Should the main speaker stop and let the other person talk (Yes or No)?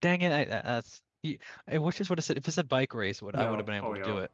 Yes